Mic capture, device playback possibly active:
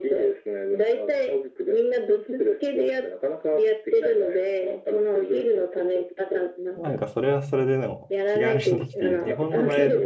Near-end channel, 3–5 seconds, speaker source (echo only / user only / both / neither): echo only